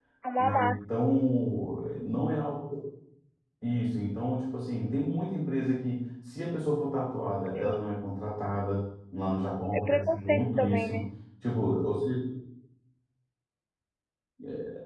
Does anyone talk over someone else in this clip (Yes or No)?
Yes